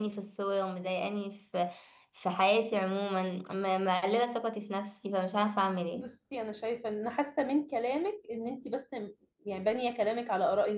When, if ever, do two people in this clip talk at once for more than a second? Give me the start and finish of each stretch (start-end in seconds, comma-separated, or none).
none